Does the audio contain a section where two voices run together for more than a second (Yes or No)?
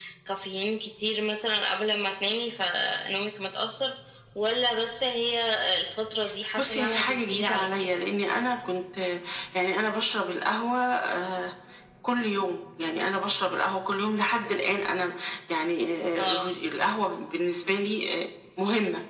Yes